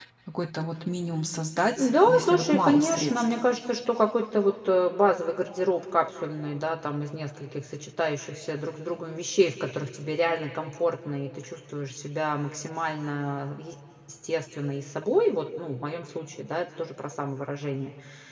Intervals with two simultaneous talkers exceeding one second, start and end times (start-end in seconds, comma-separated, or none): 1.8-3.1